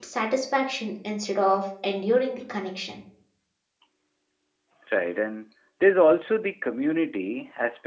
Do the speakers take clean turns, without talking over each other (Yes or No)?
Yes